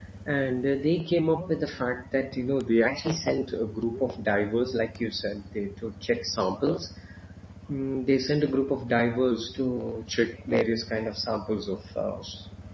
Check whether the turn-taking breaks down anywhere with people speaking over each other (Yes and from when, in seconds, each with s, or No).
No